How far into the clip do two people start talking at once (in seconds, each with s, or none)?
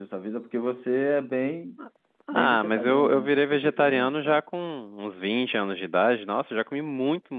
2.3 s